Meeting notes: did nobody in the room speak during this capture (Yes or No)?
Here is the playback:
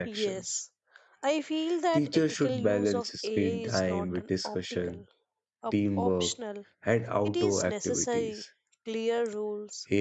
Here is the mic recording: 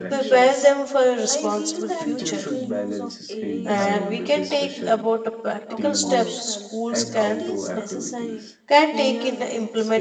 No